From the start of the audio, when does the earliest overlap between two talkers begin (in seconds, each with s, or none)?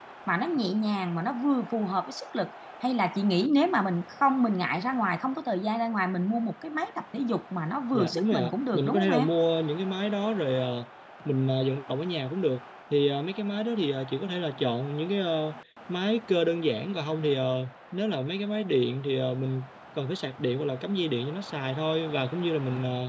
7.9 s